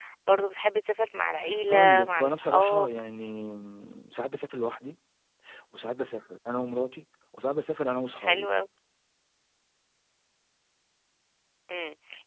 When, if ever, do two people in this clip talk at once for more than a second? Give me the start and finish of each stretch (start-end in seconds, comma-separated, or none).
1.7-2.9